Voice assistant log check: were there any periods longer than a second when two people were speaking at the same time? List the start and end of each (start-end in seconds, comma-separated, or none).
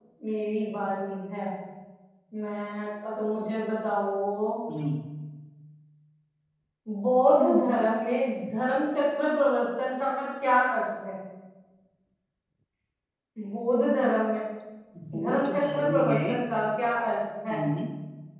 15.2-16.5